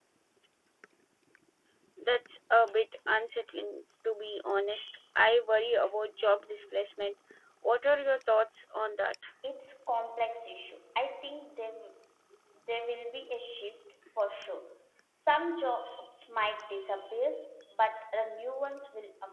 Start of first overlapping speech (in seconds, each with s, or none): none